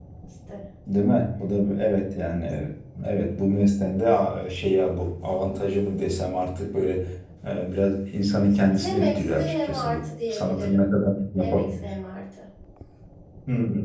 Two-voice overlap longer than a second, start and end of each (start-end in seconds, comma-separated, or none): 8.7-10.8